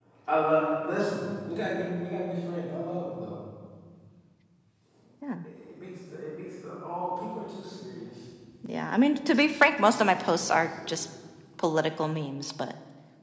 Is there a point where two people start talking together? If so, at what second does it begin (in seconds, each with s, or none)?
9.8 s